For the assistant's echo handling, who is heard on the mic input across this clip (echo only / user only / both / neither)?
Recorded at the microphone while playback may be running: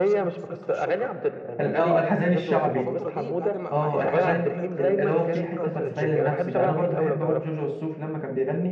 both